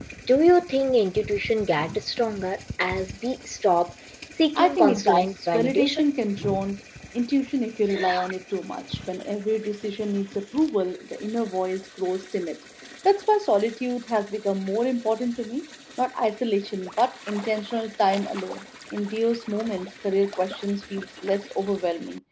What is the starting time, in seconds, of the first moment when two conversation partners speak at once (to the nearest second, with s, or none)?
5 s